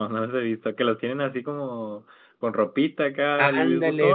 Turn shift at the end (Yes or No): Yes